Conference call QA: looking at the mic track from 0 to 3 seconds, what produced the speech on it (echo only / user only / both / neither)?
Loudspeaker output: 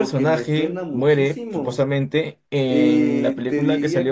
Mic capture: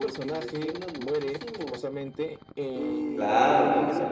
echo only